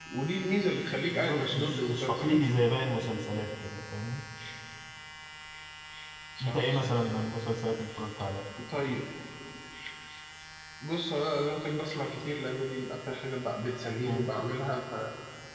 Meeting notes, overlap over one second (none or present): present